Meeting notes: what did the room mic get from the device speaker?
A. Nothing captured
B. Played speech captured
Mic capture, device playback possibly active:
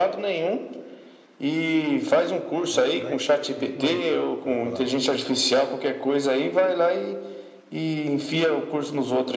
B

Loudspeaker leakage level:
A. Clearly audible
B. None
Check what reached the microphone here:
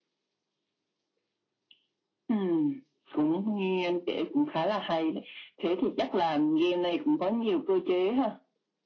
A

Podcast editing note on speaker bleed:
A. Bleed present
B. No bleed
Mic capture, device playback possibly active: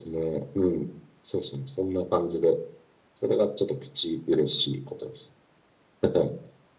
A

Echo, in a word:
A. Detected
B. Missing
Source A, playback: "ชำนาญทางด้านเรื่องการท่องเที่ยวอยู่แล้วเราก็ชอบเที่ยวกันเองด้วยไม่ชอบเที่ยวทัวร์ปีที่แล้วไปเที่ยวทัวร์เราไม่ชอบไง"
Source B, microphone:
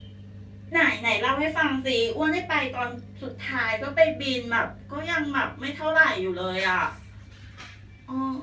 B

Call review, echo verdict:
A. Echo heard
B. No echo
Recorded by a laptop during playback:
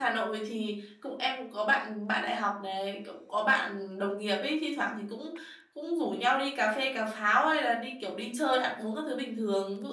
B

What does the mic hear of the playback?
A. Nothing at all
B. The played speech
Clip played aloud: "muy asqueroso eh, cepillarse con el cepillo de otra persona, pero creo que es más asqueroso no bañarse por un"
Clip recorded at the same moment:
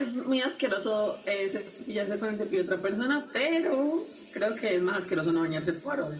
B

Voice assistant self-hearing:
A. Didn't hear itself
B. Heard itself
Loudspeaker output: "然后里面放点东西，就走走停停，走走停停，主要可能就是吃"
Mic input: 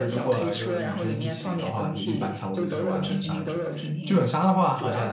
B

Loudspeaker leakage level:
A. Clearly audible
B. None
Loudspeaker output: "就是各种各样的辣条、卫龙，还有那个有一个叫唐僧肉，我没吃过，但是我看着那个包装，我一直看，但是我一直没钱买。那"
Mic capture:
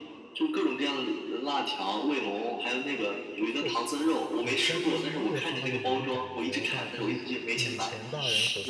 A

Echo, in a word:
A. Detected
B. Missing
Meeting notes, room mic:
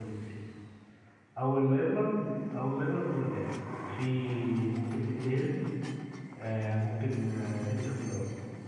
B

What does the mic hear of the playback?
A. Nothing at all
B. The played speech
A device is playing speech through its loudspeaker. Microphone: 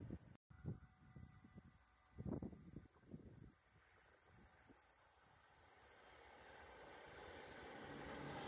A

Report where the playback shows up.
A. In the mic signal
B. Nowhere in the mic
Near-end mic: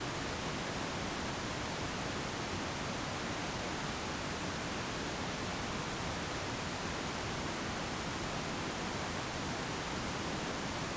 B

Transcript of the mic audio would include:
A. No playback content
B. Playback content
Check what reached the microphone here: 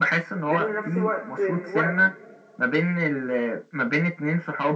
B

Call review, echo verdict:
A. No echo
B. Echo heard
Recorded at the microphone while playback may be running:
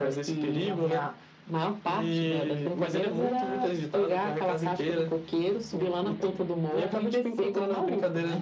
B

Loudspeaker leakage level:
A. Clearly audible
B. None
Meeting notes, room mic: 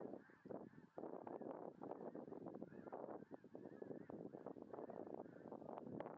B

